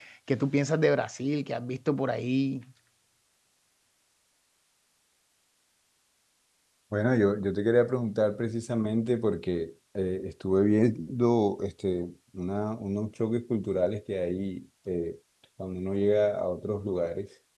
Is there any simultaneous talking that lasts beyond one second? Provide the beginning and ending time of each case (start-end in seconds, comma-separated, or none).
none